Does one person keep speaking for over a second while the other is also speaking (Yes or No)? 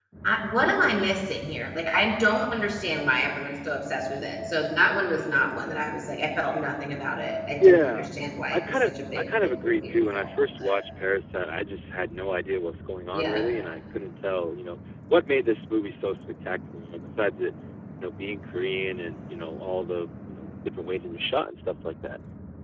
Yes